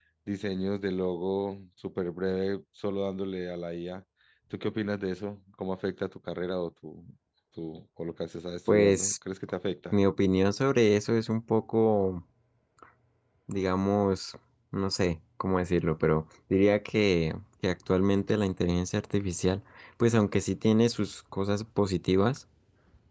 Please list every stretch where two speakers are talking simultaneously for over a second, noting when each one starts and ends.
none

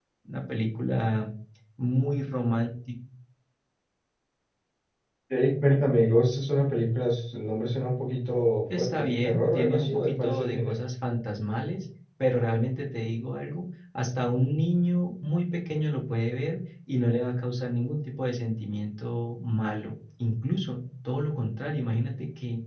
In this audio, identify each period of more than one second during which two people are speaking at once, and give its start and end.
8.8-10.8

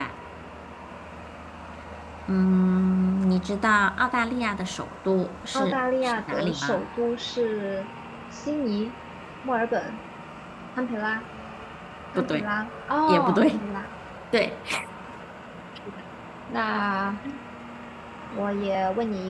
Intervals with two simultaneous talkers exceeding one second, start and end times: 5.5-6.8

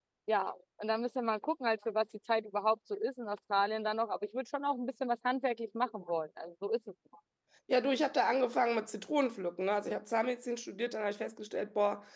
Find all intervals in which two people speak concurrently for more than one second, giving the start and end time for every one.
none

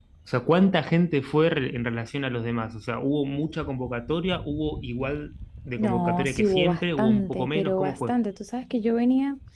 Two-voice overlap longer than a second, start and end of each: 5.8-8.1

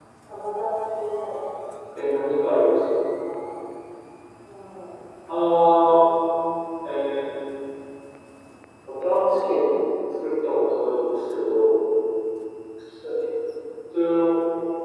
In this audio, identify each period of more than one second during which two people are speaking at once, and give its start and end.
none

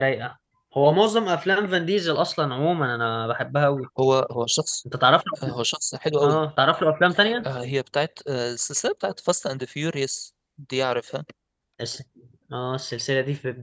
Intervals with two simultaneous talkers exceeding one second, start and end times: none

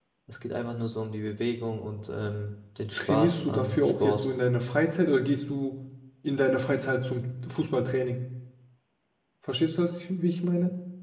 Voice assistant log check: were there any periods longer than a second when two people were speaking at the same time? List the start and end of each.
2.9-4.2

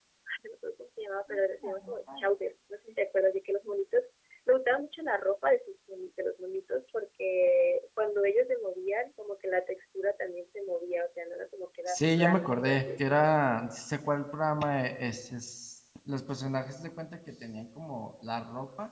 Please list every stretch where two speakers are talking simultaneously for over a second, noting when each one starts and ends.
11.9-13.2

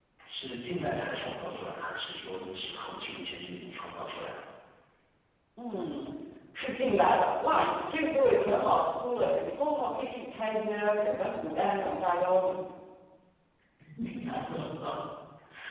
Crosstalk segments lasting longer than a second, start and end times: none

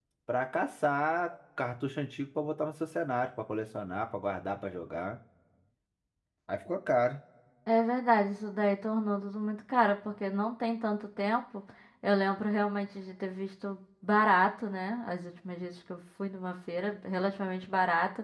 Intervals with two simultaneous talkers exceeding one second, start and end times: none

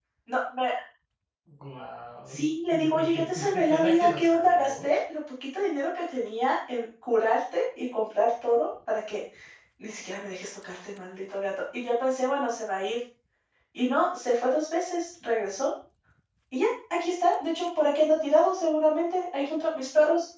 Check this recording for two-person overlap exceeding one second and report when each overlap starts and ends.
2.3-4.7

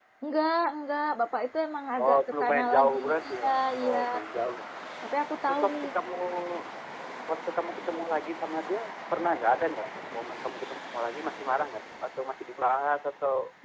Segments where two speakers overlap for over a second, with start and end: 2.0-4.0

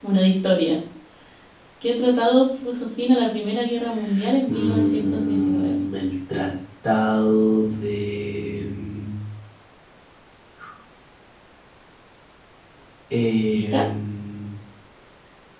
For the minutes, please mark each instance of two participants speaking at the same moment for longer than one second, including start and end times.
4.5-5.8

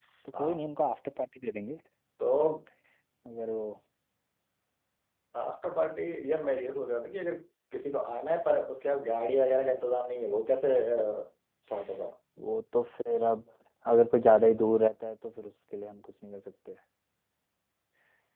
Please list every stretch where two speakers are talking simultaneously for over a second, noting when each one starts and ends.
none

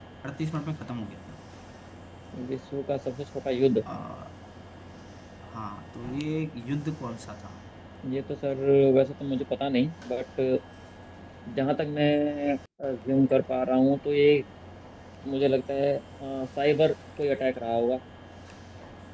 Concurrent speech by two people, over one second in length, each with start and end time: none

